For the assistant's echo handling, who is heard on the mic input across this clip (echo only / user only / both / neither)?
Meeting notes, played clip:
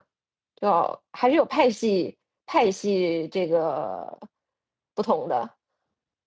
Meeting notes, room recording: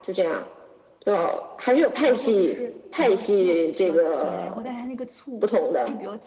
both